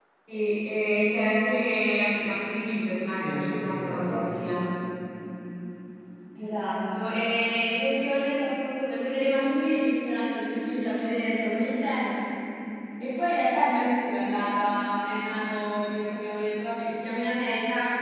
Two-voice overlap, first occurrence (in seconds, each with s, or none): 3.2 s